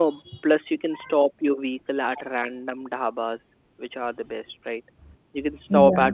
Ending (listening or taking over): listening